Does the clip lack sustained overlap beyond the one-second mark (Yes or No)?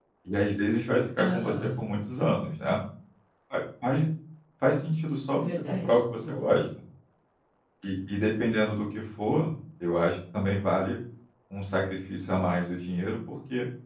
No